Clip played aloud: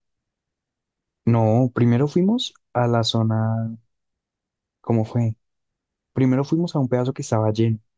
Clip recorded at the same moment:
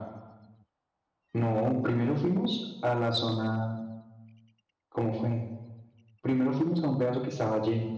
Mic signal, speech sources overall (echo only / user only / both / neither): echo only